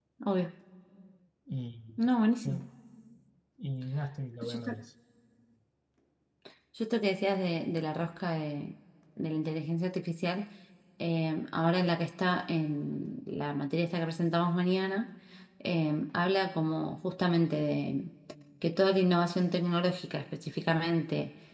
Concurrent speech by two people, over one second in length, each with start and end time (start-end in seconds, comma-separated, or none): none